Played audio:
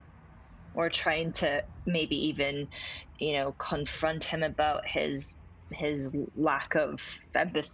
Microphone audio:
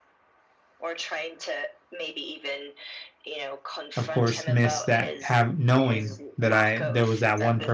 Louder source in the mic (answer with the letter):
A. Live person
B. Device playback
A